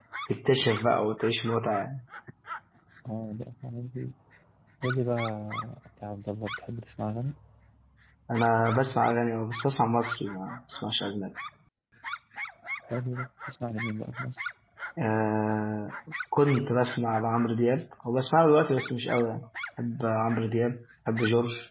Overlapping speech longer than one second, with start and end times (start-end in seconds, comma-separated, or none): none